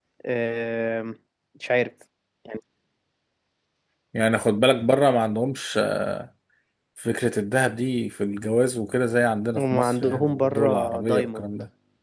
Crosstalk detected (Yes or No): Yes